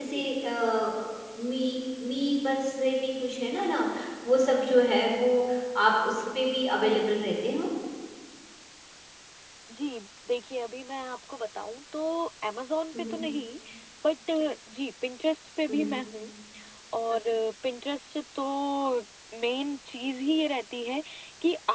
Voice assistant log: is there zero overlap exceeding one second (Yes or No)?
Yes